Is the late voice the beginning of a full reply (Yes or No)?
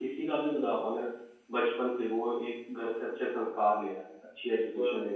No